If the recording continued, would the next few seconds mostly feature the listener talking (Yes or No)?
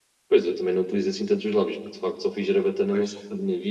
No